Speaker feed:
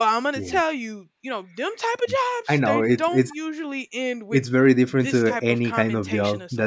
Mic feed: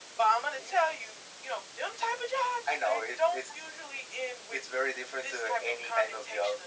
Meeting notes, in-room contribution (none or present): none